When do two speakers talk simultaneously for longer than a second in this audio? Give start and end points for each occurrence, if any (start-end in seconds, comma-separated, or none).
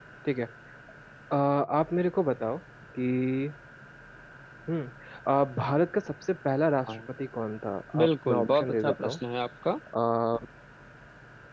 8.0-9.2